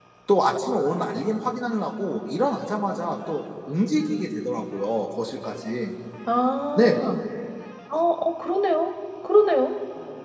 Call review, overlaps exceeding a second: none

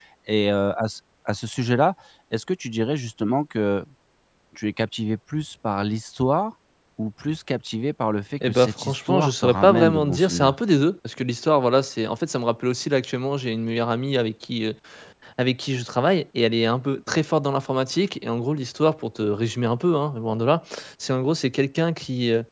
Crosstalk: present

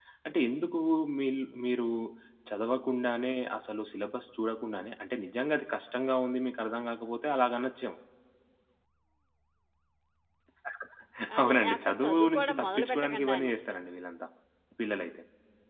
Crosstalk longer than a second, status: present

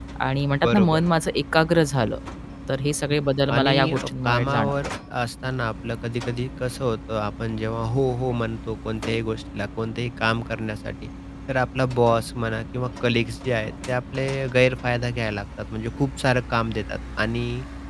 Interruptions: present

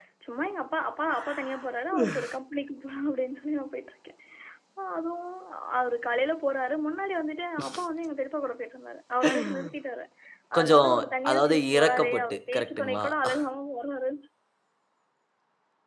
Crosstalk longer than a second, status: present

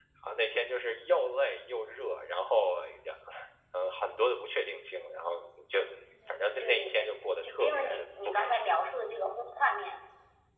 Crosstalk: present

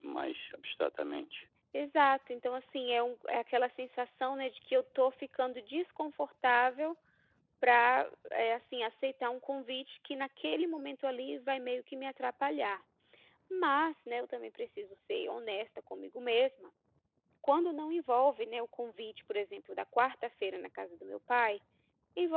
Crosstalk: none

